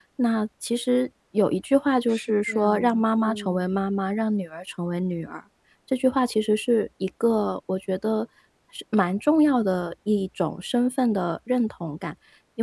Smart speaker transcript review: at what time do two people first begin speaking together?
2.1 s

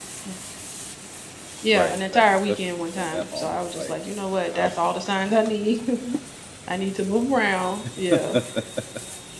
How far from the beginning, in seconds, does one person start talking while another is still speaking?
1.7 s

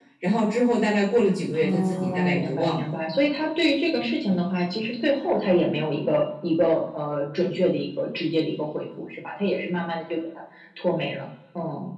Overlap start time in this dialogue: 1.5 s

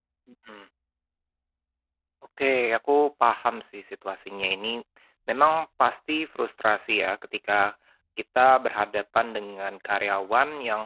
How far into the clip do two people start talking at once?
none

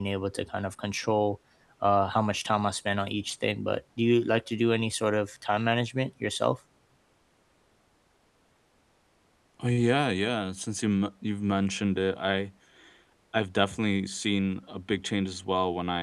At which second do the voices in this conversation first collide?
none

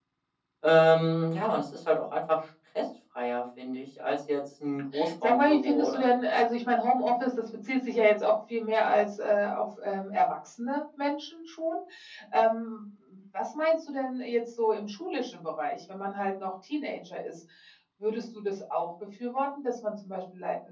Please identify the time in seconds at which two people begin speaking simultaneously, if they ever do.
4.7 s

